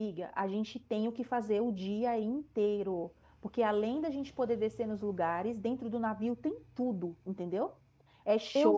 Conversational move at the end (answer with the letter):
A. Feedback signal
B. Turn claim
A